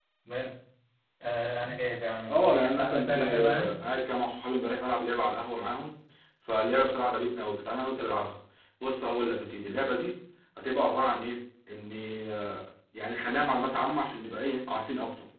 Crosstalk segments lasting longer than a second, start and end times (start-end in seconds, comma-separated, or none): 2.3-3.8